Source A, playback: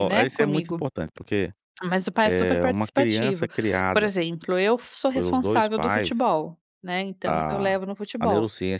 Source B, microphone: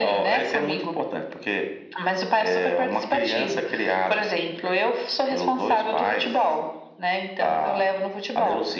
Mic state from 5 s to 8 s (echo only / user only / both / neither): echo only